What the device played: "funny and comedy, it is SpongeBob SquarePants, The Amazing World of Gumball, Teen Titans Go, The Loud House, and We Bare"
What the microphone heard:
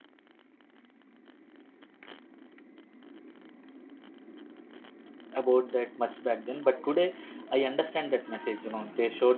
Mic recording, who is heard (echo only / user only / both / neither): user only